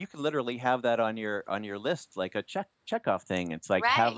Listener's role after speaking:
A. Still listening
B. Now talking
B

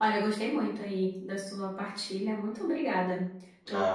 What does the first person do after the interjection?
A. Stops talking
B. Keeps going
A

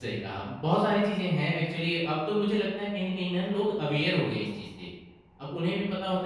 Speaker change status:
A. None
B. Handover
A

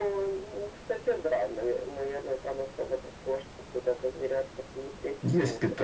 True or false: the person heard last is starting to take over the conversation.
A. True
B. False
A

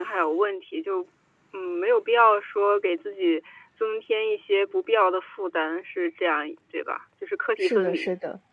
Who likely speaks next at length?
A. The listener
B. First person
A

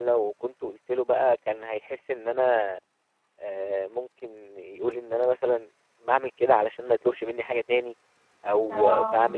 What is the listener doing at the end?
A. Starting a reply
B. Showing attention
B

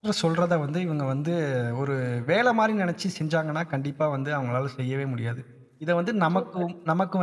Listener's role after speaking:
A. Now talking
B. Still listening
B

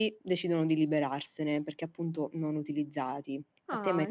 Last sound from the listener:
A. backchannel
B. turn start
B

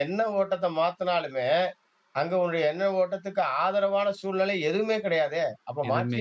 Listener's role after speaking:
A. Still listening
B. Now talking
A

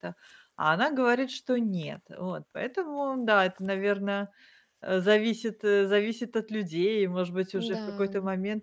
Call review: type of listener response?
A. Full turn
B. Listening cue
B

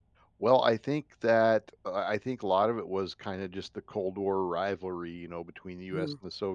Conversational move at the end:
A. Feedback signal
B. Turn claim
A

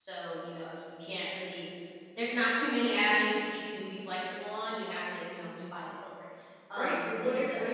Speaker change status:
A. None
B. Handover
B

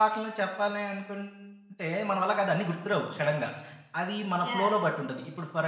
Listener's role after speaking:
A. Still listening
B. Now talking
A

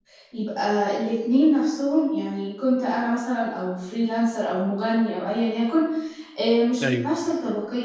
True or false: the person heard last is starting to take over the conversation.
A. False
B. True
A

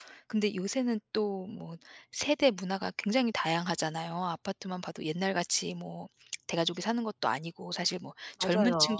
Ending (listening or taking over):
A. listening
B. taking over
A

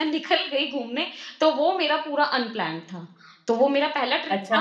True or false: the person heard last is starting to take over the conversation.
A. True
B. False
A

